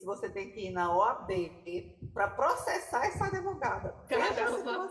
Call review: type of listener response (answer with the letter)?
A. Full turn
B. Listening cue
A